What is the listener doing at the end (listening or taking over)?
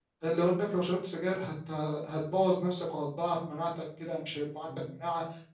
listening